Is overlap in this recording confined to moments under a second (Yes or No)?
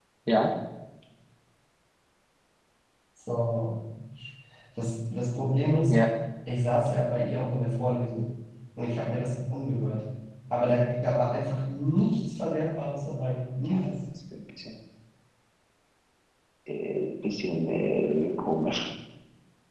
Yes